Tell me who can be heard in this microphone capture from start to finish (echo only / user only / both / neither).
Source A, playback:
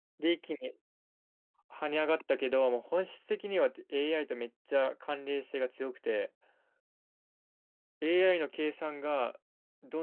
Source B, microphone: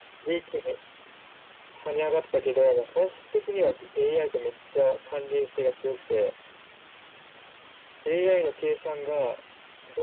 echo only